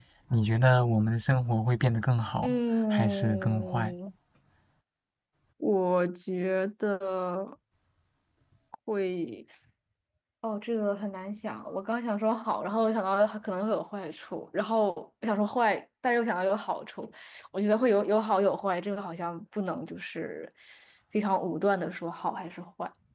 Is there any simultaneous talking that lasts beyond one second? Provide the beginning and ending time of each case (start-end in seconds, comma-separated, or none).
2.4-3.9